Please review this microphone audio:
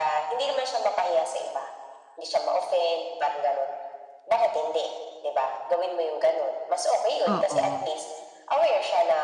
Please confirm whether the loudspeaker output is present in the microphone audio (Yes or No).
Yes